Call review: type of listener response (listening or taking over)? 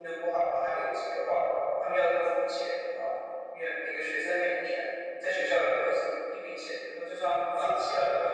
taking over